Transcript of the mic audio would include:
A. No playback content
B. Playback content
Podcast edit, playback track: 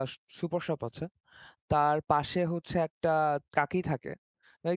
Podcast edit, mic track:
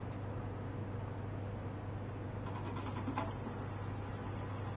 A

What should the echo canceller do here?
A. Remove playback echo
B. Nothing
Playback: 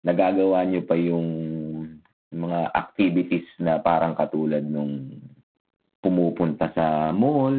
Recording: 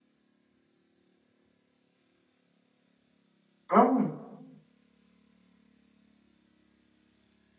B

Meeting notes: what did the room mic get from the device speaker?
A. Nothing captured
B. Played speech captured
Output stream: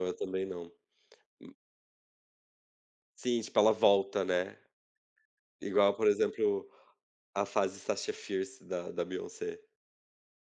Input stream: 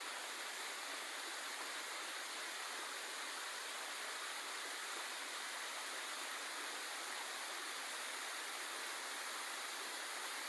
A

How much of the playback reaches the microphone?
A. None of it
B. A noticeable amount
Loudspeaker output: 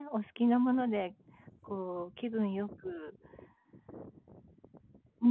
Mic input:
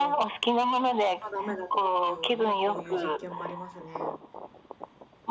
B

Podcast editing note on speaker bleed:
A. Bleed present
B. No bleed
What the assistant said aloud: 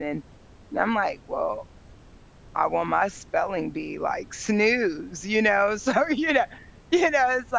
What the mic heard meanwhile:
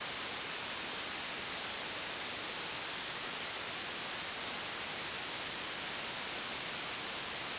B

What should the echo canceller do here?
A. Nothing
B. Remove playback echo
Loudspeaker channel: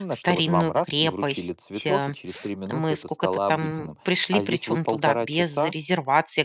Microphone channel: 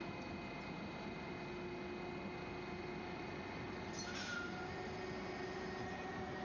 A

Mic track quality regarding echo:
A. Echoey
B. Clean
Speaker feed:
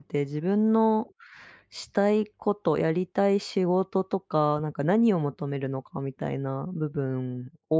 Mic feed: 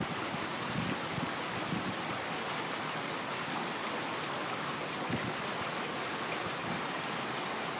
B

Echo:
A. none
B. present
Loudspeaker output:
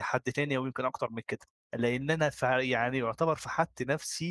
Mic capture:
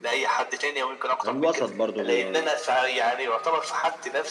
B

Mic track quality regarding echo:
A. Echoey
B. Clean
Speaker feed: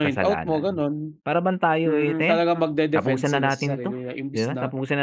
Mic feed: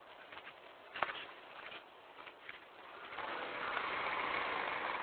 B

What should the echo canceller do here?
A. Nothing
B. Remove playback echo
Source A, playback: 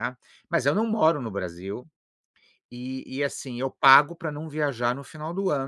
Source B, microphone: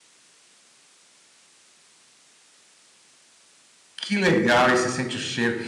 A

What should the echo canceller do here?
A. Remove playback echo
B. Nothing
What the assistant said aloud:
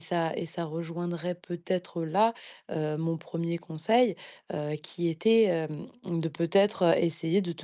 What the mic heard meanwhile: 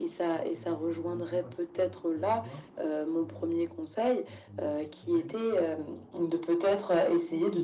A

